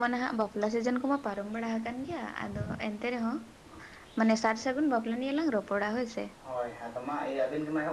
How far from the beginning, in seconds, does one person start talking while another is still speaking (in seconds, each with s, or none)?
none